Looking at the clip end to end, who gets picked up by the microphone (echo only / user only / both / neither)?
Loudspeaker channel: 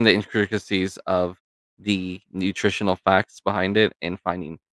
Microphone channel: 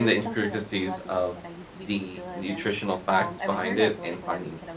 both